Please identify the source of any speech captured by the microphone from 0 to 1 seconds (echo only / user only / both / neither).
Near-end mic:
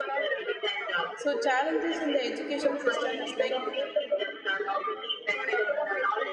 echo only